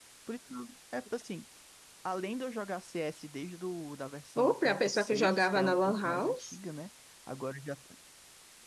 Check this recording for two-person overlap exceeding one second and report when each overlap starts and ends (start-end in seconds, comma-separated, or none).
4.4-6.6